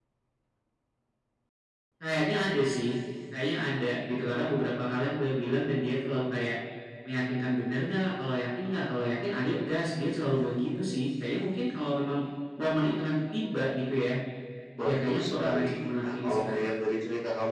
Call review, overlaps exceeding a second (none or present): present